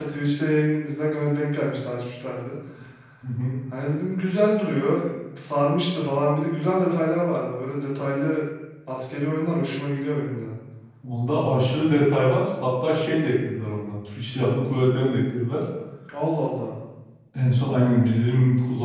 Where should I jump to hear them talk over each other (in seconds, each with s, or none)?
none